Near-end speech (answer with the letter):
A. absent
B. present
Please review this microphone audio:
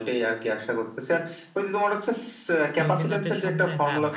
B